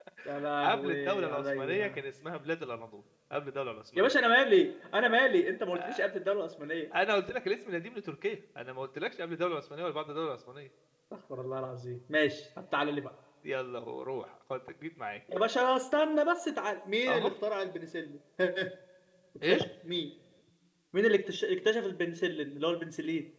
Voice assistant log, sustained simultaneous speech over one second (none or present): present